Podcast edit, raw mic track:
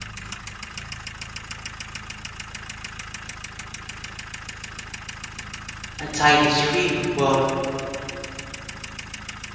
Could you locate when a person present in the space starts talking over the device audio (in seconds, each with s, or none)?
6.0 s